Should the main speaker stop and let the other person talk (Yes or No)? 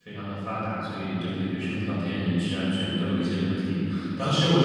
No